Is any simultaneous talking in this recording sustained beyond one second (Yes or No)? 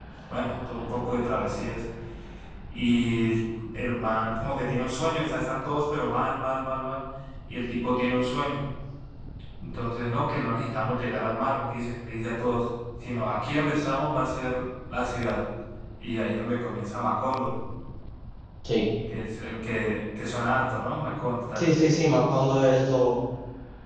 No